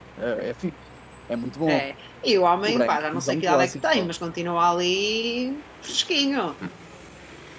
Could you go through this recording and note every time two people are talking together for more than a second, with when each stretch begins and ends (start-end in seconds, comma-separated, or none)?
2.6-4.1